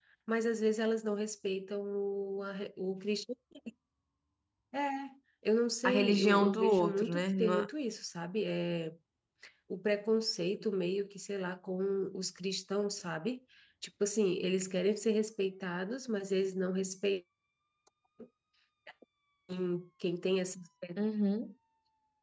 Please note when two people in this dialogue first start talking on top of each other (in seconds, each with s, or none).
5.8 s